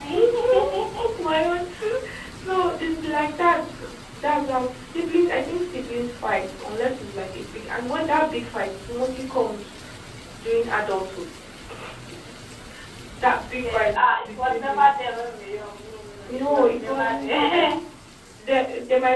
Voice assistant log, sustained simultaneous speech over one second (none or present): present